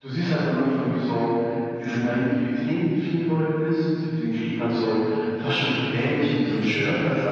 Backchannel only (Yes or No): Yes